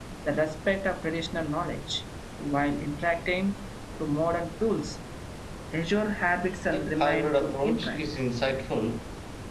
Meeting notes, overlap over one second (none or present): present